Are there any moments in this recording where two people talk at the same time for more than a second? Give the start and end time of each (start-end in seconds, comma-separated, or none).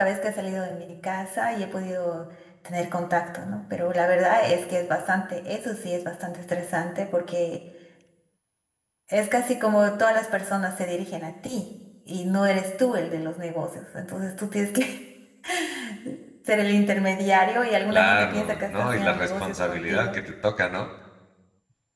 17.9-20.2